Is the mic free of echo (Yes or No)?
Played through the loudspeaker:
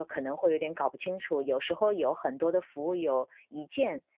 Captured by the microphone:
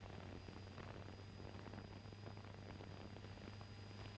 Yes